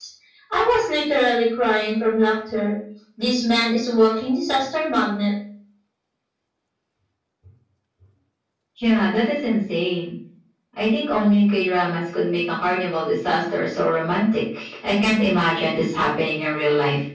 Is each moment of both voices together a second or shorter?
Yes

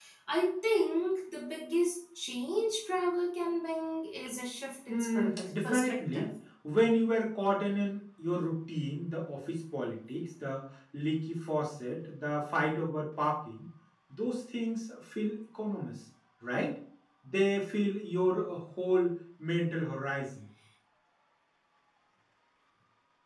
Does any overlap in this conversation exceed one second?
Yes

